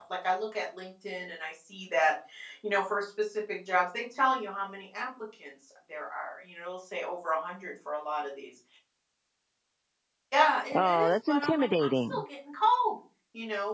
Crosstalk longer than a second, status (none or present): present